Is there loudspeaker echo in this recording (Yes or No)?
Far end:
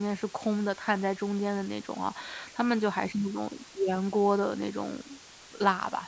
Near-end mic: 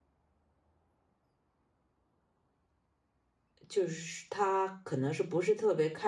No